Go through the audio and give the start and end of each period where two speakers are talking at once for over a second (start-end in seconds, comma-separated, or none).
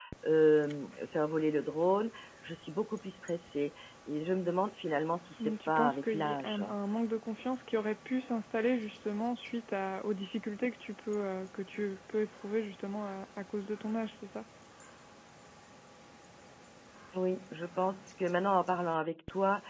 5.4-6.6